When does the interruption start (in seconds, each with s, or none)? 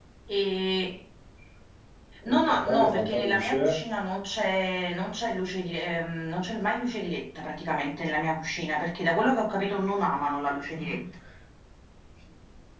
2.2 s